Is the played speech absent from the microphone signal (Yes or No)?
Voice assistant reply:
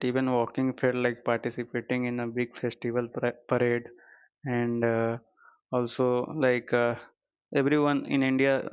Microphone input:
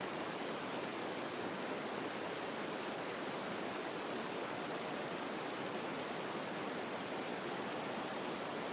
Yes